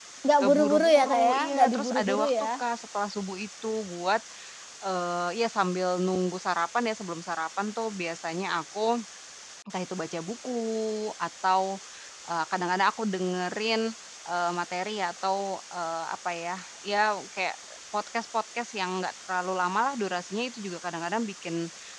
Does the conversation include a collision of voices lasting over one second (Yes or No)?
Yes